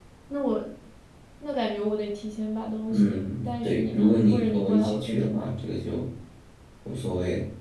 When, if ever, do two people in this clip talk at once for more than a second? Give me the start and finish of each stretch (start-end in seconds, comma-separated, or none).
2.9-5.5